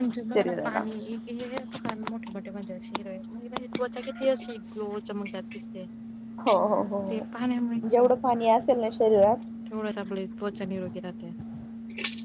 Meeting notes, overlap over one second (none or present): none